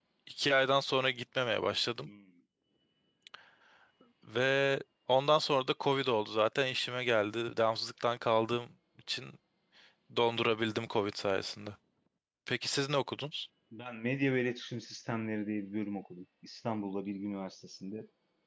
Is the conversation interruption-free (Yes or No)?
Yes